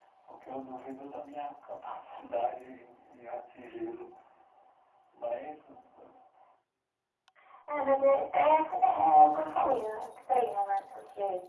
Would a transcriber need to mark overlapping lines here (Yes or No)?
No